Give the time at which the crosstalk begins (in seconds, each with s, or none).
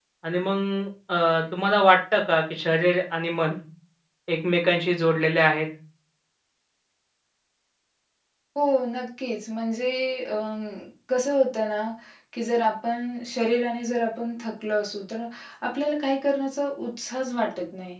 none